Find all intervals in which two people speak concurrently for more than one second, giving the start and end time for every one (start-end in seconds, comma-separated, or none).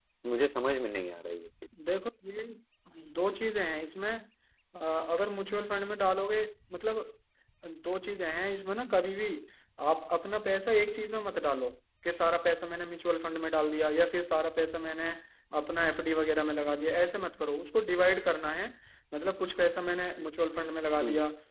none